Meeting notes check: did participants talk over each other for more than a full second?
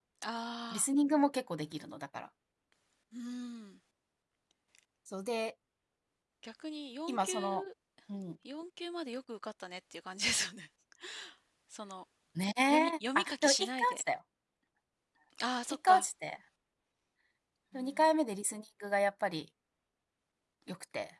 Yes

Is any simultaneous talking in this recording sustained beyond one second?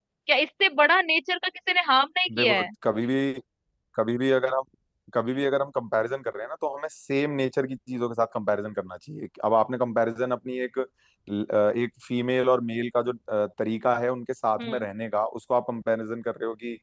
No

